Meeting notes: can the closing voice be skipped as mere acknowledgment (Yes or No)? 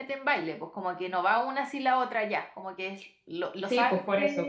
No